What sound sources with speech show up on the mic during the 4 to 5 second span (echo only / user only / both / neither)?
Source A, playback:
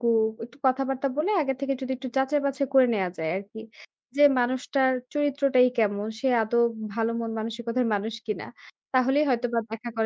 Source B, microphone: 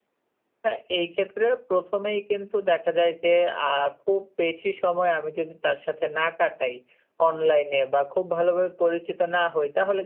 user only